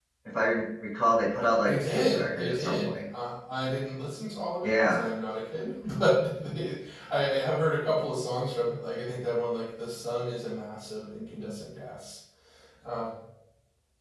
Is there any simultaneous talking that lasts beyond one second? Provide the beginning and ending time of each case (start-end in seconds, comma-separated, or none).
1.7-3.0